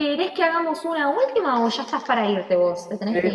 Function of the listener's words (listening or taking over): taking over